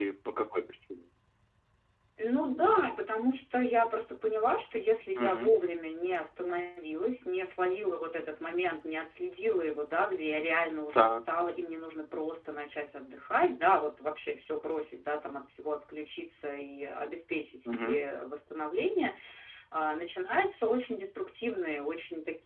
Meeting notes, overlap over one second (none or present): none